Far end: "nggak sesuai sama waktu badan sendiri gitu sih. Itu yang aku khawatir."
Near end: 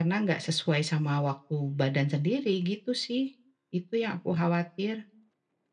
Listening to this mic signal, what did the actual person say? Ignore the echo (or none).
none